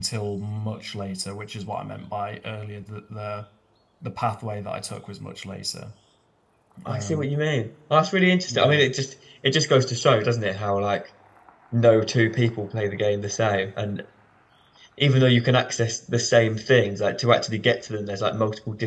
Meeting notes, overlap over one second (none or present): none